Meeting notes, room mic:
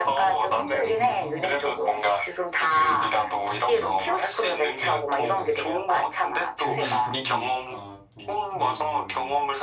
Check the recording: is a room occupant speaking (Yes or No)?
Yes